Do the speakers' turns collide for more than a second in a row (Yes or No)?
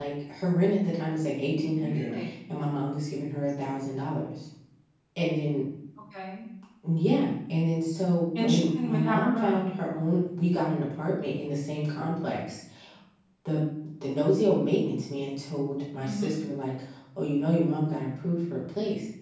Yes